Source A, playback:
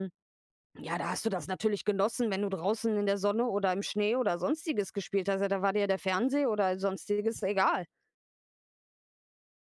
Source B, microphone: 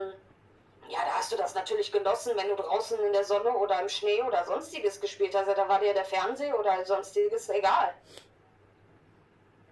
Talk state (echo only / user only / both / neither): echo only